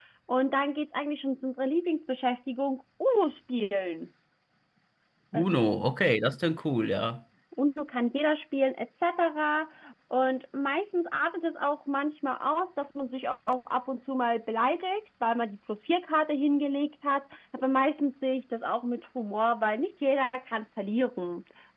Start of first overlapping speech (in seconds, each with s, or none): none